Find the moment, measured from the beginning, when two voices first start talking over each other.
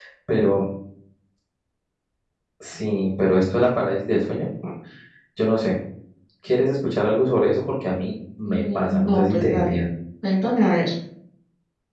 8.4 s

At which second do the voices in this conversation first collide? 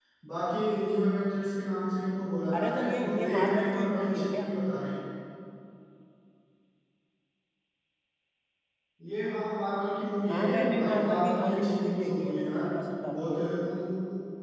2.6 s

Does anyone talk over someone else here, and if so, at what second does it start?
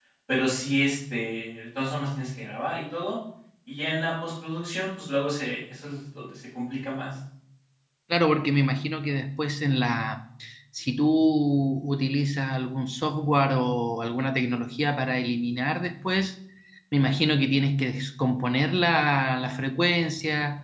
none

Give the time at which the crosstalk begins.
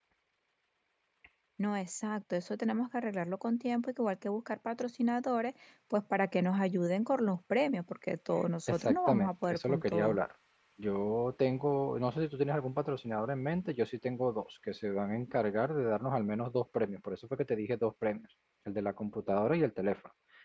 8.7 s

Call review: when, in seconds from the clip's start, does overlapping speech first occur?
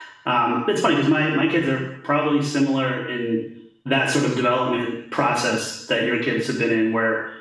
none

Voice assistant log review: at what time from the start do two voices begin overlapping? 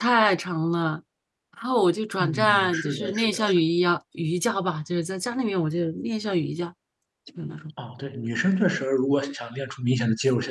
2.2 s

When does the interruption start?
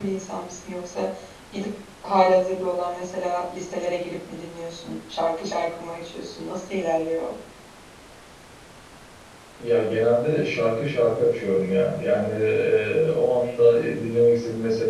none

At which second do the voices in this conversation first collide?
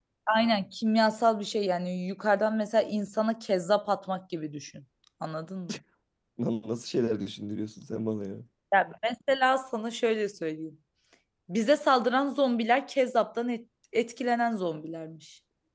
none

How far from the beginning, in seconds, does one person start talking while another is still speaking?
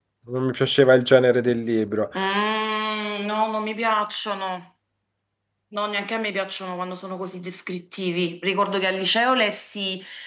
none

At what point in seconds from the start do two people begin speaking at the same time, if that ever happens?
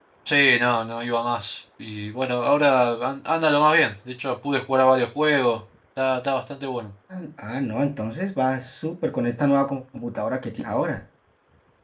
none

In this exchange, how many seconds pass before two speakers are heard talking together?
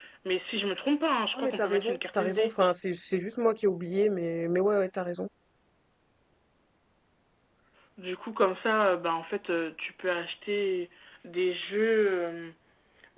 1.3 s

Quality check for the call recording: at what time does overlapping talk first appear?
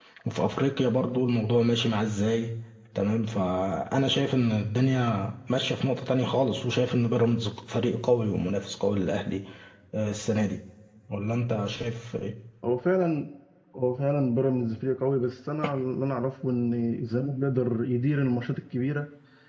none

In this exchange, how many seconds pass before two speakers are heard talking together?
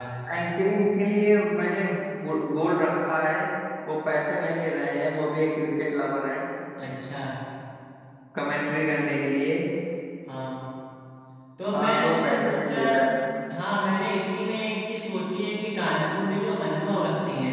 11.7 s

